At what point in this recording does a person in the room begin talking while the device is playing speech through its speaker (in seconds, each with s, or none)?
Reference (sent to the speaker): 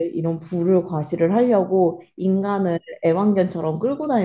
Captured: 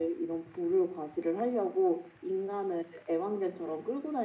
none